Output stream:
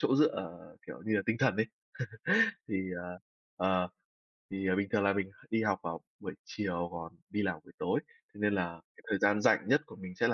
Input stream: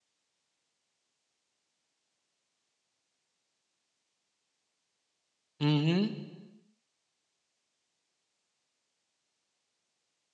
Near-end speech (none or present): present